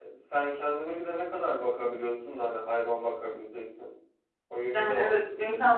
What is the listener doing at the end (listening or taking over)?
taking over